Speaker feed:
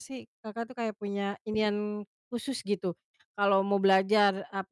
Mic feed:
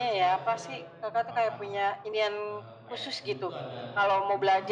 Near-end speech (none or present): present